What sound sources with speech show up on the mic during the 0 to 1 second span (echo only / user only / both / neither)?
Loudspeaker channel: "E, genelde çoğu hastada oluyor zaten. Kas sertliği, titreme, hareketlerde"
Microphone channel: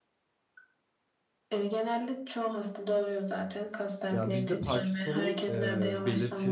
neither